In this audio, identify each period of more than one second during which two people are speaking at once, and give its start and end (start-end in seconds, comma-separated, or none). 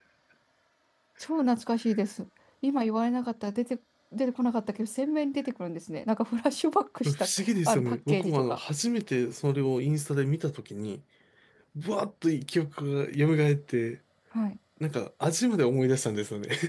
7.0-8.6